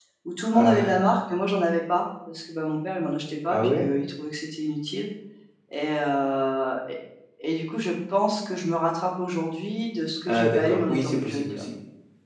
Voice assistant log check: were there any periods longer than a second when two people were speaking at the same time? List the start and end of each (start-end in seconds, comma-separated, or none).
10.3-11.7